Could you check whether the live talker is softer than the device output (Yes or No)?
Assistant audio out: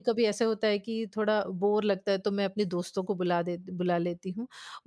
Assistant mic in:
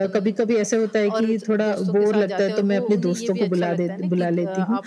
Yes